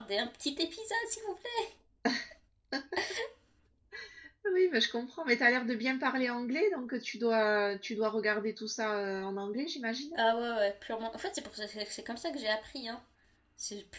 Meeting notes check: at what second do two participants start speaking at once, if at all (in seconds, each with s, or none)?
none